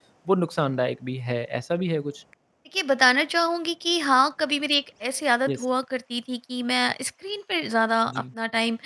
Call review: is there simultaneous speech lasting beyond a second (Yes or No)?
No